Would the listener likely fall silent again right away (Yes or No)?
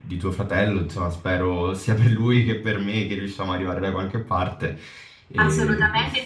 No